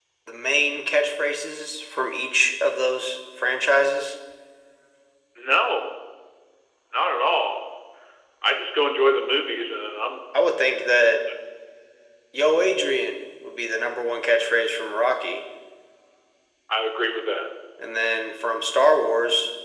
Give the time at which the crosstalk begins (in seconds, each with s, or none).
none